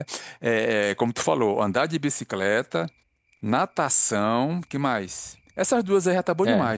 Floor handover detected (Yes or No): Yes